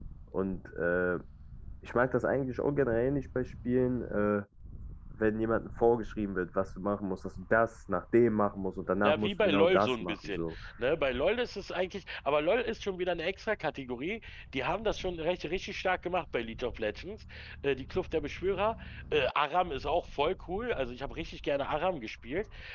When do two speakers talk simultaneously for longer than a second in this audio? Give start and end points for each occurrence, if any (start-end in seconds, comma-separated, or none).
9.0-10.5